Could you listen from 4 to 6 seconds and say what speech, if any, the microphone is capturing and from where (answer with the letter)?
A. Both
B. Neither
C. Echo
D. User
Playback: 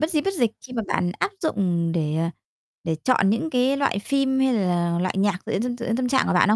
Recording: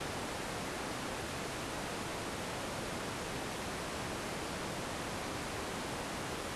B